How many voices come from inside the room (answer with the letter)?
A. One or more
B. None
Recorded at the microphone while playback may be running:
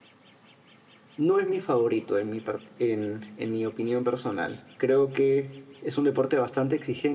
A